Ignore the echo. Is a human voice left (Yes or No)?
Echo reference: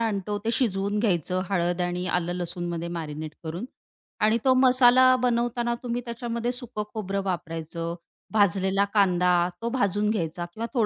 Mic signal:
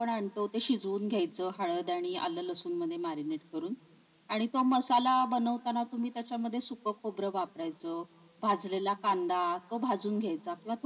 No